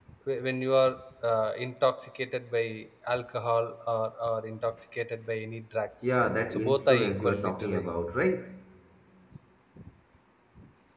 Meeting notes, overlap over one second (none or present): present